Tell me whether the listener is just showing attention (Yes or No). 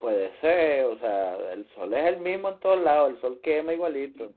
No